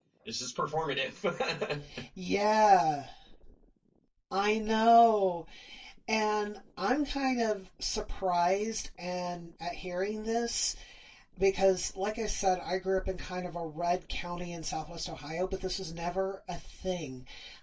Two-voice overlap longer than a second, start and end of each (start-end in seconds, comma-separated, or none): none